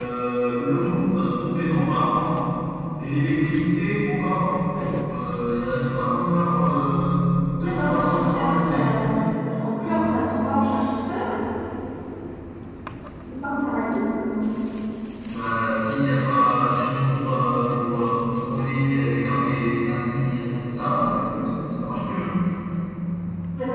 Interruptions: present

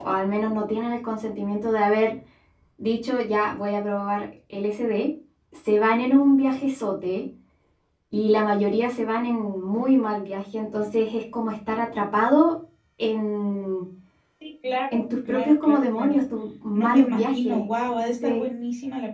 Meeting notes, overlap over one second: present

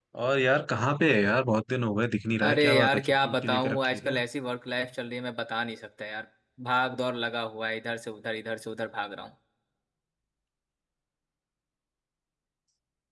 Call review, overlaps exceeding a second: present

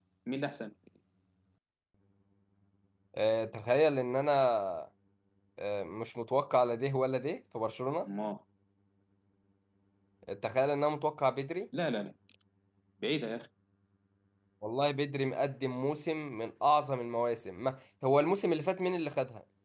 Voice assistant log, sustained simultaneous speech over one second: none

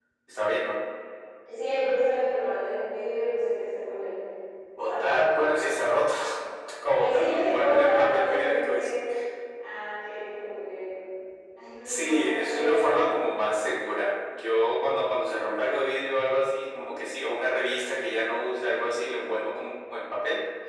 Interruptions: present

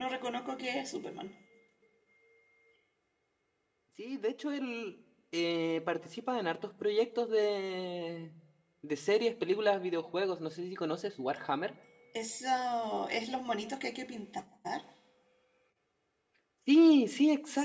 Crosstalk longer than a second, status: none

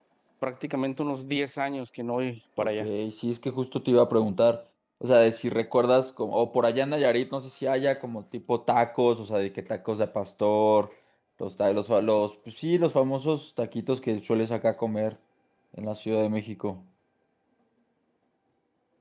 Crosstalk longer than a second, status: none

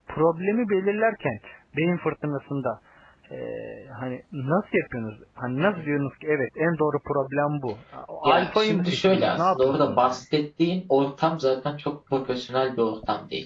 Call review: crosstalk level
present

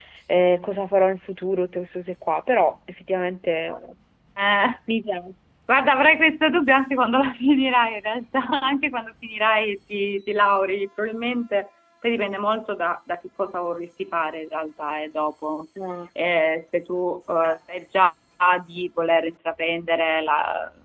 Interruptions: none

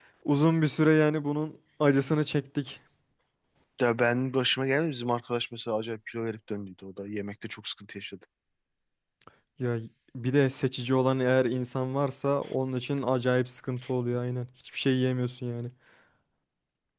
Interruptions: none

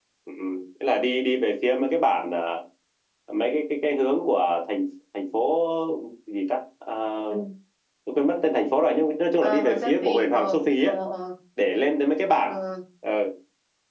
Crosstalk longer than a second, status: present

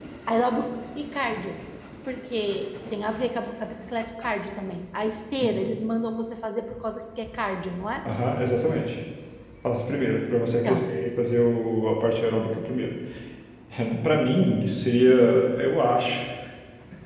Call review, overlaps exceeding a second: none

